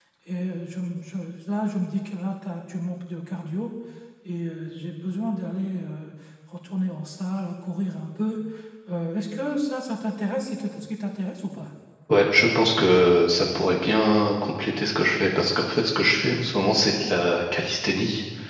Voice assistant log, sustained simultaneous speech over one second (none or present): none